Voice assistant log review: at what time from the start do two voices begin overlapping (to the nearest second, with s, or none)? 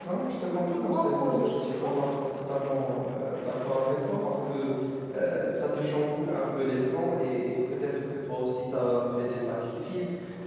1 s